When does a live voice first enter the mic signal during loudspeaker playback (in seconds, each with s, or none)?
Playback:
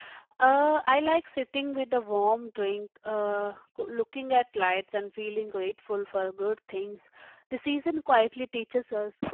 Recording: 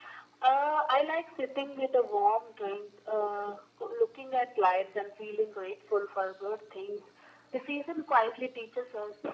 none